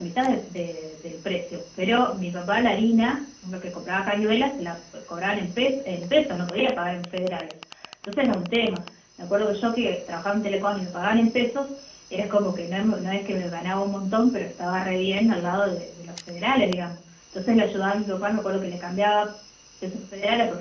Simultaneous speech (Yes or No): No